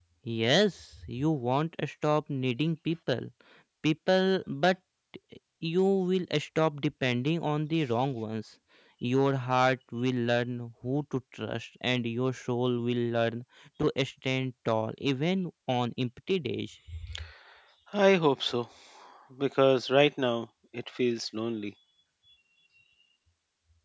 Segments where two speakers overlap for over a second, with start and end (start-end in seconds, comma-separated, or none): none